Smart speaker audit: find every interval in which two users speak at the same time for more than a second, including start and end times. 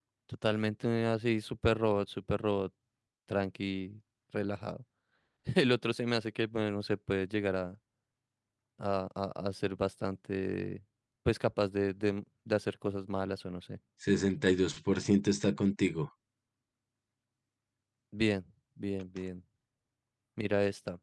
none

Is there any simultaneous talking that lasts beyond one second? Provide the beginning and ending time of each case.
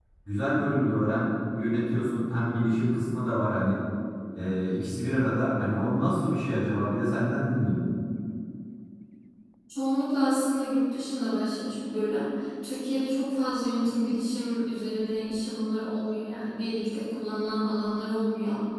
none

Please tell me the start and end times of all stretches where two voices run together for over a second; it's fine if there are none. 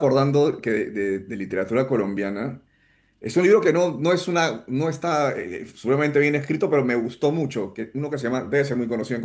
none

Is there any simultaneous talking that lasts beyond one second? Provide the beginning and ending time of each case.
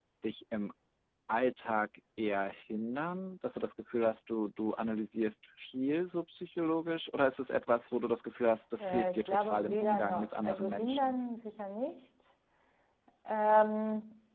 8.8-11.2

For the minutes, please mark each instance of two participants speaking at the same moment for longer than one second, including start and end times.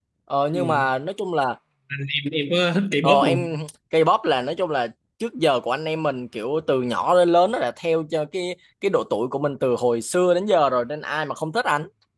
none

